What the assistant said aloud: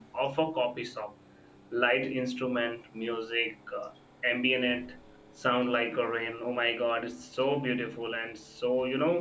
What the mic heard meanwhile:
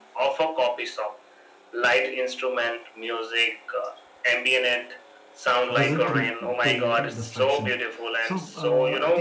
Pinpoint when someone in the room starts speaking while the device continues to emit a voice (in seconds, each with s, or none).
5.7 s